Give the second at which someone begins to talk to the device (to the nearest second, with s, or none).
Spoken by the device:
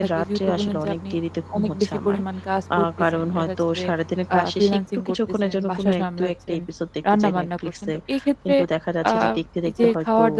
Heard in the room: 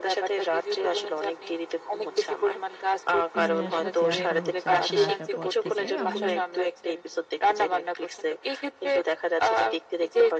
3 s